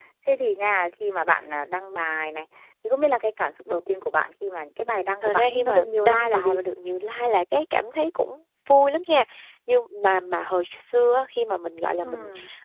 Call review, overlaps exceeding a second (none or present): present